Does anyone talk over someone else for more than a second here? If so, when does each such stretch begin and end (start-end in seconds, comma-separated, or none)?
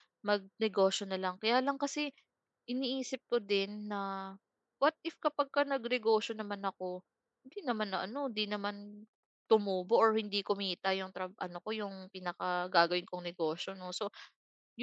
none